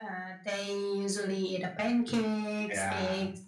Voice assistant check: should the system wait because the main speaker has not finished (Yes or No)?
Yes